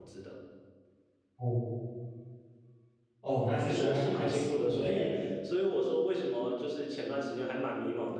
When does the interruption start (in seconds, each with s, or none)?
3.7 s